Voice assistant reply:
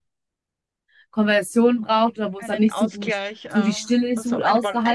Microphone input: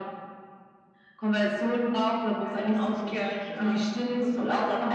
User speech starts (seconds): none

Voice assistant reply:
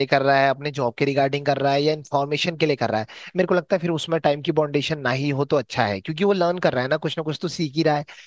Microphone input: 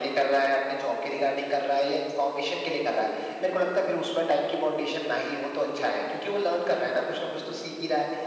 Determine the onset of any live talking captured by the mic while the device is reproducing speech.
none

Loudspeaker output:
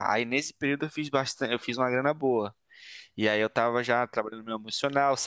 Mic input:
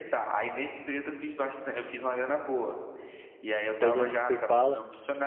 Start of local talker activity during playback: 3.8 s

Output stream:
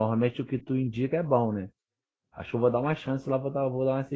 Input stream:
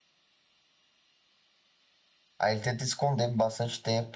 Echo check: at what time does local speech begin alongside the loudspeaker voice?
2.4 s

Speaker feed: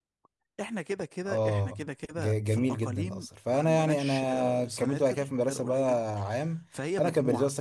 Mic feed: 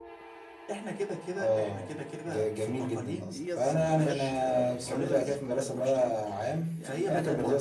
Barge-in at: 3.3 s

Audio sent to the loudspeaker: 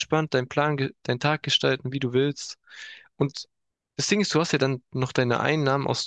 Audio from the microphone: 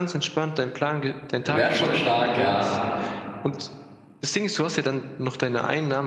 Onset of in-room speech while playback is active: 1.4 s

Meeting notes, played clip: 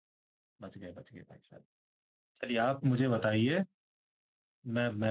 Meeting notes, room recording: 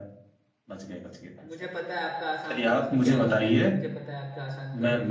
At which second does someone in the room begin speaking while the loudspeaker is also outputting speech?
1.4 s

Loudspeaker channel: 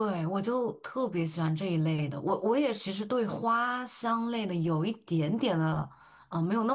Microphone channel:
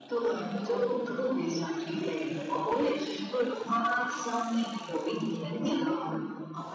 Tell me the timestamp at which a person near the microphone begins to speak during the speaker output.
0.7 s

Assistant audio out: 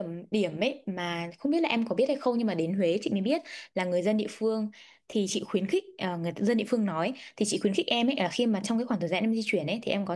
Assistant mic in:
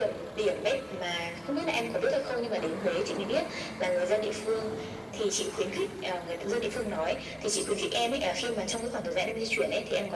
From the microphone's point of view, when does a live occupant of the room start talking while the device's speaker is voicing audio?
none

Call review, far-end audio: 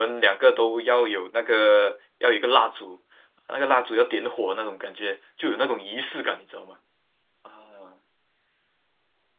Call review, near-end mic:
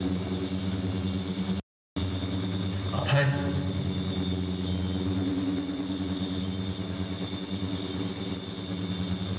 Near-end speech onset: 2.9 s

